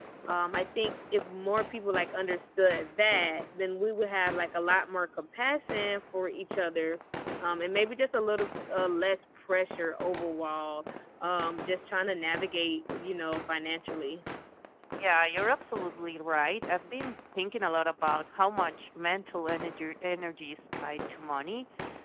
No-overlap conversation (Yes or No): Yes